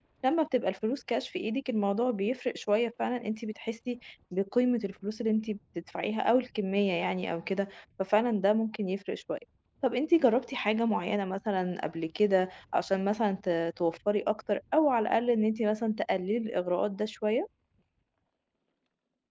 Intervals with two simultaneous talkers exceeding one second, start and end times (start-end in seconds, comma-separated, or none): none